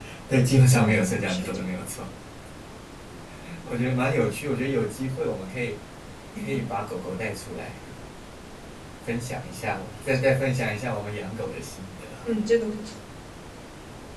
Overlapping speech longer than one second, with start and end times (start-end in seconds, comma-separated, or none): 0.5-1.8